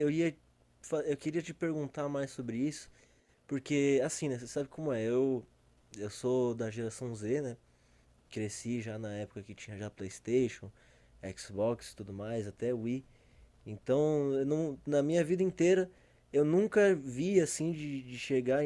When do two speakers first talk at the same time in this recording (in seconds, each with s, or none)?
none